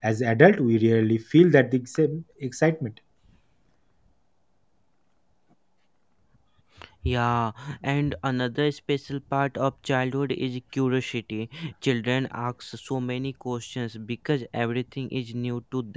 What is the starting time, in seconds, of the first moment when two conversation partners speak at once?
none

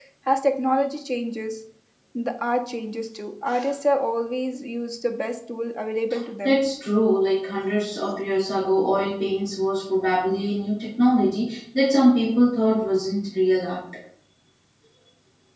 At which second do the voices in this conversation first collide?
none

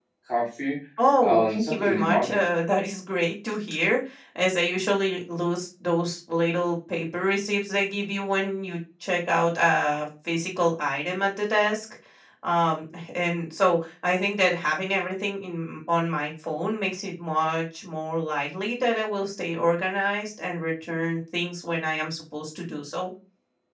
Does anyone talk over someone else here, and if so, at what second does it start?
1.2 s

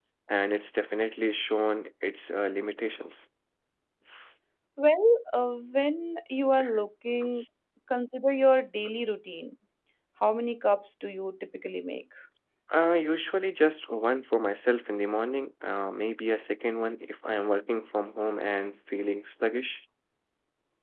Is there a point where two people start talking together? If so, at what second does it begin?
none

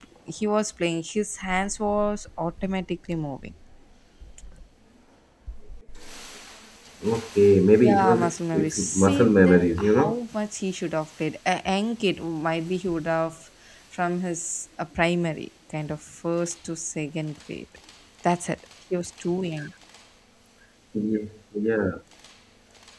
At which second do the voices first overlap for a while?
7.8 s

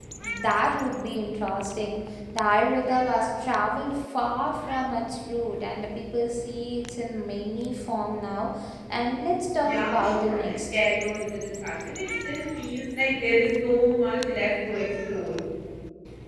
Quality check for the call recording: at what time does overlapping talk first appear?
9.6 s

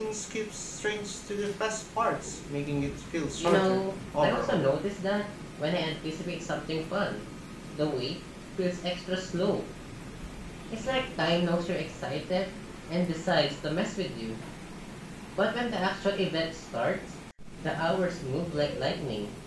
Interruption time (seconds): 3.4 s

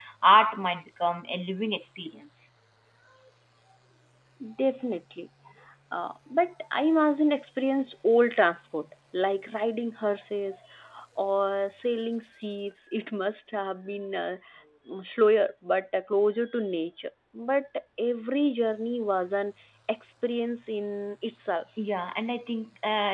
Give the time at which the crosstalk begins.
none

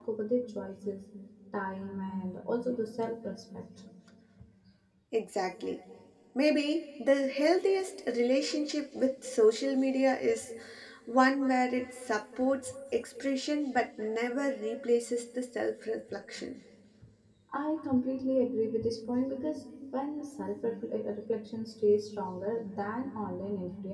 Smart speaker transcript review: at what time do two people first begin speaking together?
none

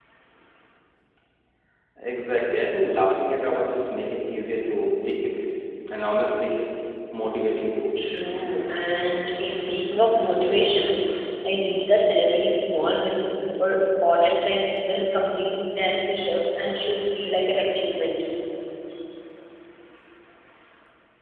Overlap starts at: none

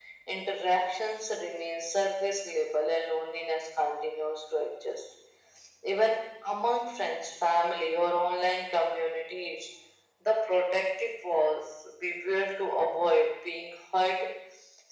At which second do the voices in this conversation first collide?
none

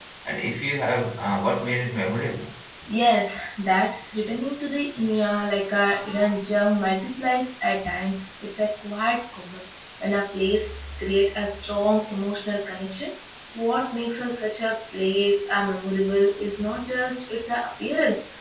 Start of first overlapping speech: none

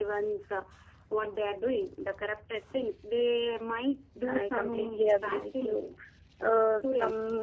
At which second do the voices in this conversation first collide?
4.4 s

